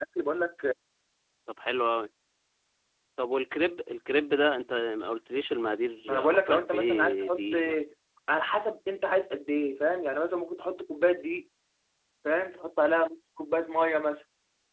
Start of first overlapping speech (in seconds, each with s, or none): 6.1 s